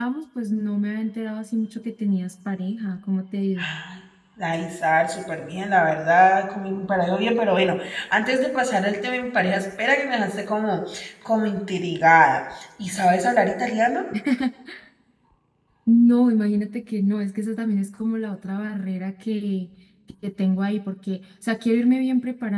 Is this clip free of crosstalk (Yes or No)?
Yes